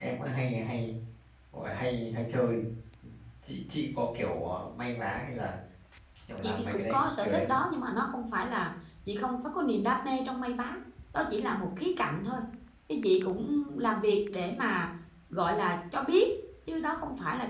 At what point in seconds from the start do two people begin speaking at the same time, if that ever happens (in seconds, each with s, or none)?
6.4 s